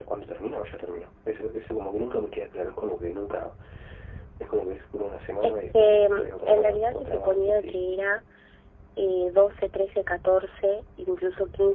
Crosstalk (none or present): present